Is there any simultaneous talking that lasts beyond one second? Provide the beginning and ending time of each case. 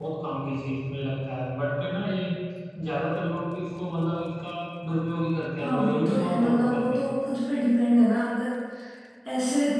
5.6-7.0

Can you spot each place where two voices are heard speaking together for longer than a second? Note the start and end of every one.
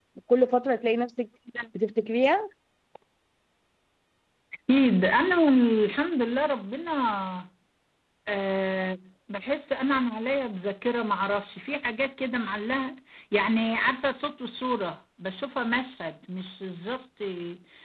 none

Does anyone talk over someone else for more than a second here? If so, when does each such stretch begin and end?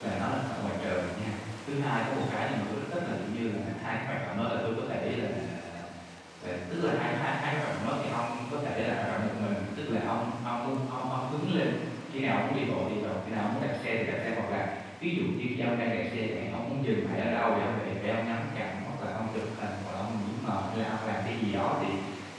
none

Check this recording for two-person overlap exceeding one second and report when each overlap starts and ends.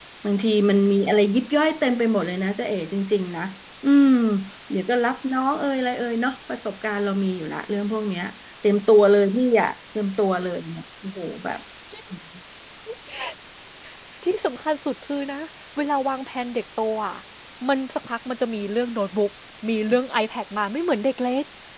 none

